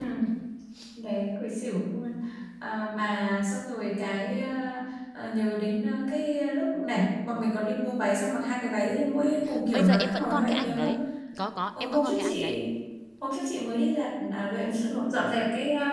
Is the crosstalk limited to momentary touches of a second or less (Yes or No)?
No